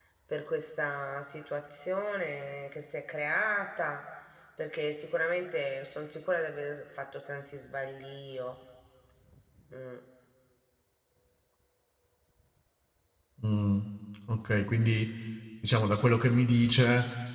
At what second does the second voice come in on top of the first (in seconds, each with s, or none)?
none